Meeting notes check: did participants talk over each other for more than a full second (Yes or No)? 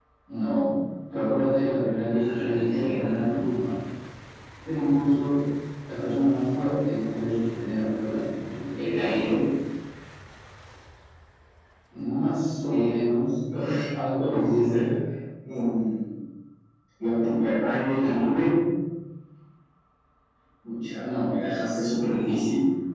Yes